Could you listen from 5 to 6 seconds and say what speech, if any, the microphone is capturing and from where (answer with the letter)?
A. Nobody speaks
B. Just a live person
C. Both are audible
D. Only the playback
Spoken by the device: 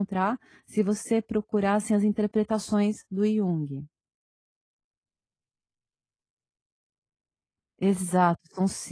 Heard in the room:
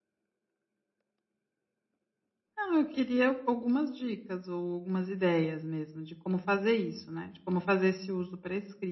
B